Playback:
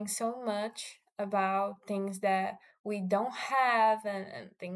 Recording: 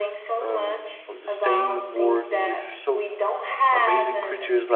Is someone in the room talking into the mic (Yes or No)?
Yes